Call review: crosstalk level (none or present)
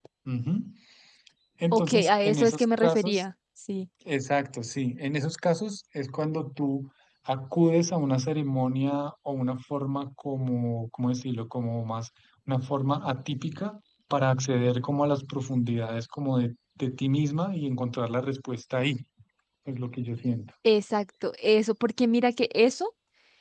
present